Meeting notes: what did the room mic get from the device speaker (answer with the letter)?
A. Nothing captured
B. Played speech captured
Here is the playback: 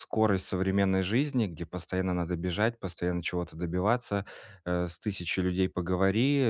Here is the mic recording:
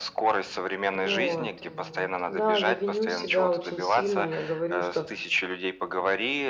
B